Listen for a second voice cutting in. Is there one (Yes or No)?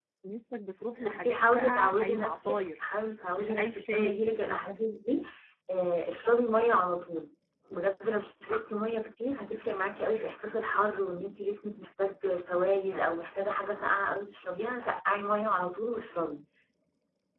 Yes